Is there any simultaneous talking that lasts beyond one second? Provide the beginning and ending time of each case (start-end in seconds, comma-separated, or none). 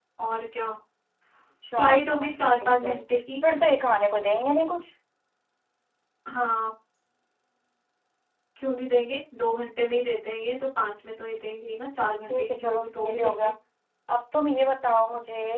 1.7-3.0, 12.3-13.5